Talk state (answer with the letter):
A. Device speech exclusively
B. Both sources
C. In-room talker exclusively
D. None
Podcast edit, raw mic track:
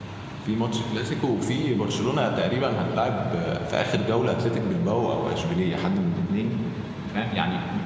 C